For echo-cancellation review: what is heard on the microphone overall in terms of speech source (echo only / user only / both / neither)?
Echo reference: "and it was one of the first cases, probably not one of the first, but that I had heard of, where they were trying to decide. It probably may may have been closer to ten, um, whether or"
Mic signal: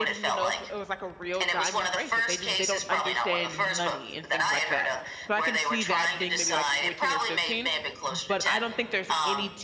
both